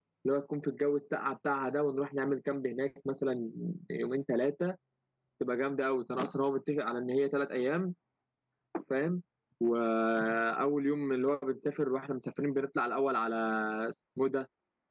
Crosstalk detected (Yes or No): No